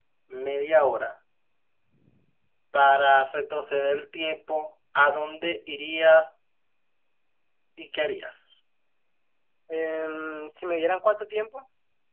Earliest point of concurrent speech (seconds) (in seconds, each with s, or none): none